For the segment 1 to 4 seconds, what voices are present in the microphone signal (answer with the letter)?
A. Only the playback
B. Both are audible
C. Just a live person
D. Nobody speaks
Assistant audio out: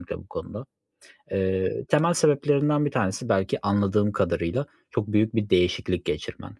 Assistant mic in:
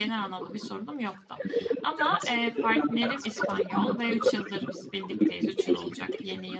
B